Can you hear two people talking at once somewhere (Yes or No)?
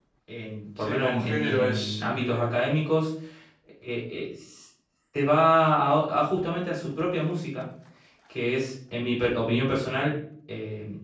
Yes